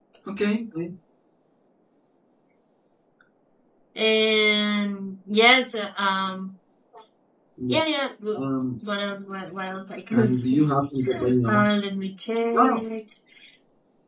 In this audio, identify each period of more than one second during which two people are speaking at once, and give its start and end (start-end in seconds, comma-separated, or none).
none